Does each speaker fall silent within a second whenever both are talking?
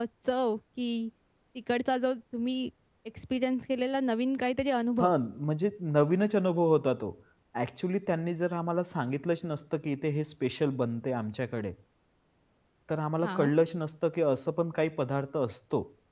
Yes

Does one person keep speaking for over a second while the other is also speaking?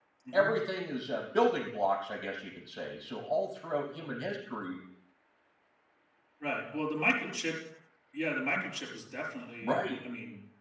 No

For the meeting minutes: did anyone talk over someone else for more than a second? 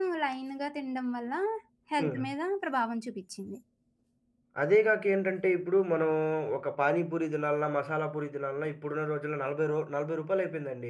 No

